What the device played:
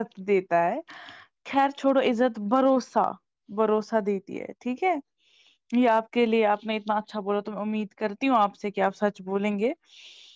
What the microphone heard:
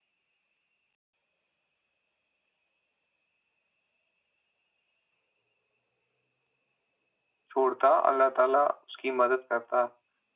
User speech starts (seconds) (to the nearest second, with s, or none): 8 s